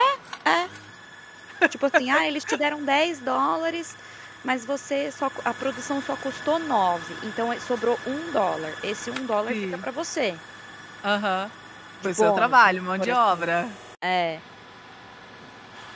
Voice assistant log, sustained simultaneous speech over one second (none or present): present